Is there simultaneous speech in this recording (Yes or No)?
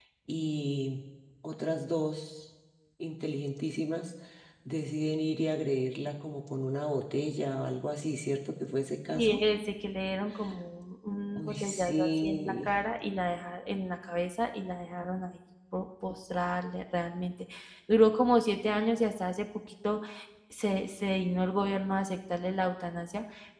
Yes